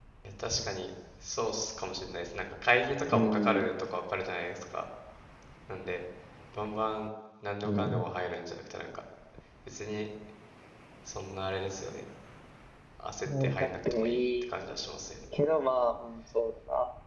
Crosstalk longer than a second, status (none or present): present